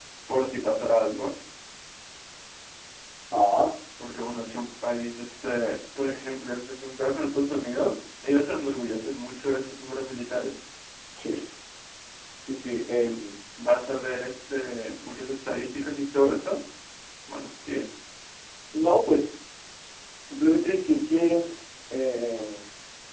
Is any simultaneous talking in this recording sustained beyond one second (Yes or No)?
No